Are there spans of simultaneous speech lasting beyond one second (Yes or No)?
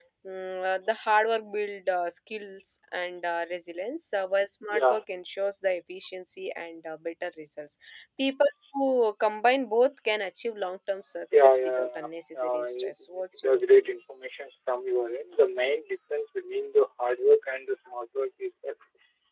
Yes